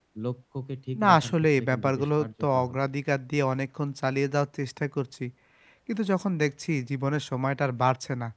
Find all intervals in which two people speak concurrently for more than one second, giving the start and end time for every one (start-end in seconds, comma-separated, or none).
1.0-2.8